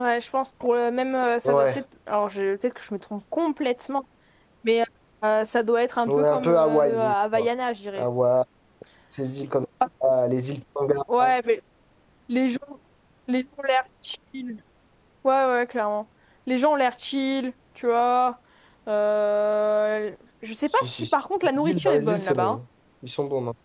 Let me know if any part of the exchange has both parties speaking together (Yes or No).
Yes